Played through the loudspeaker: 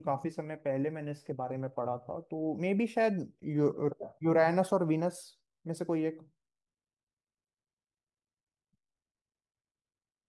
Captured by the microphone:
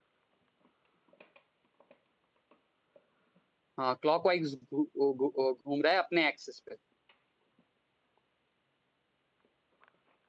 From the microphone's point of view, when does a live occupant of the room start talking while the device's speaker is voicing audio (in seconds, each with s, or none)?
3.8 s